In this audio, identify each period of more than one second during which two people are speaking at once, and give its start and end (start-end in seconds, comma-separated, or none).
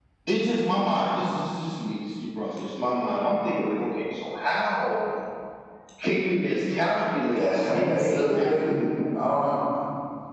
7.3-8.8